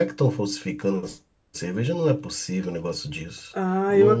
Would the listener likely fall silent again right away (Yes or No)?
No